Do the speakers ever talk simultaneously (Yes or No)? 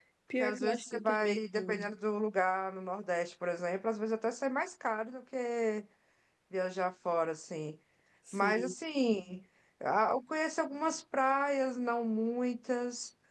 Yes